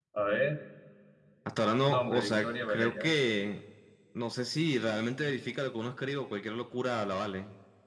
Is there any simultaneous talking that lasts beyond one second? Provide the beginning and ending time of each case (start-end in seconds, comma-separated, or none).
1.9-3.1